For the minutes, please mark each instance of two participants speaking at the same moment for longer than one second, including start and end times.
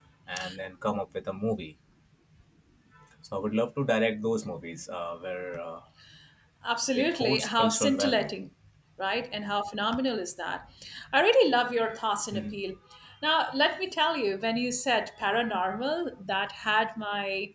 7.0-8.3

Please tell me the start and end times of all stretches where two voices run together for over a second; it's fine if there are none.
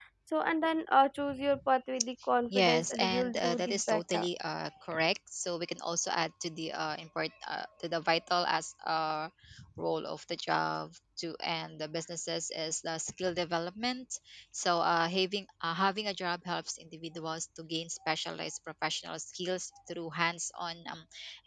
2.5-4.3

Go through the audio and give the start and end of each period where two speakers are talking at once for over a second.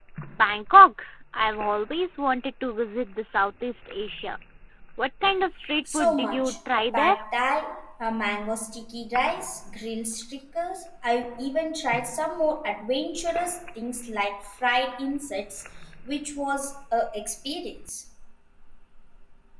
5.9-7.2

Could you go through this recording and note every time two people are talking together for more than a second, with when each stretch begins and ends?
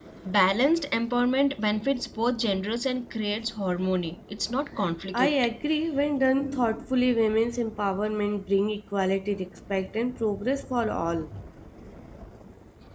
none

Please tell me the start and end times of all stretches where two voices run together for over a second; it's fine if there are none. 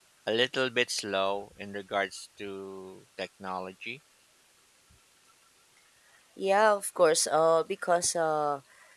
none

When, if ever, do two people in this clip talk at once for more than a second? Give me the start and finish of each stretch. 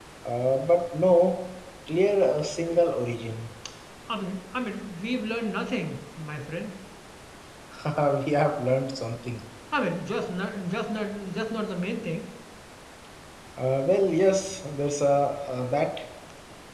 none

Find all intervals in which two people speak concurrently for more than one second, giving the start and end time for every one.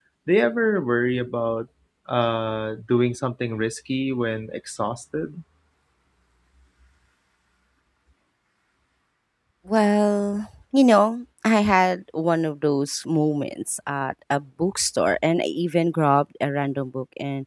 none

